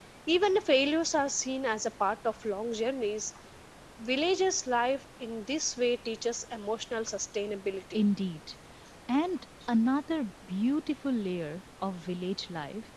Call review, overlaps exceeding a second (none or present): none